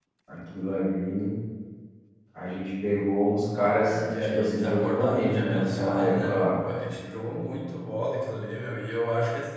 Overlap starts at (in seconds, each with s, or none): 3.5 s